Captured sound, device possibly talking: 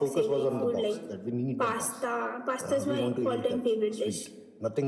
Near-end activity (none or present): present